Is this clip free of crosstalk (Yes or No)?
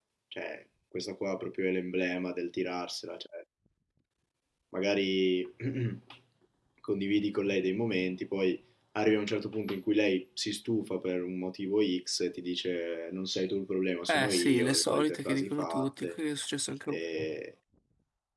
No